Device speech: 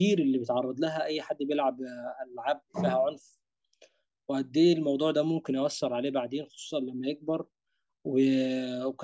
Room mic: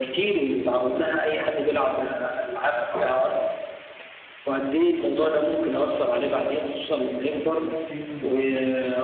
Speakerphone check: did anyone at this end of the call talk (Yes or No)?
Yes